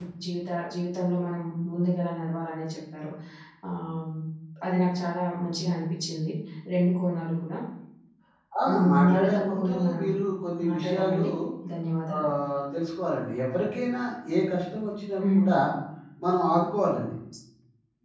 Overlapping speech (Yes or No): Yes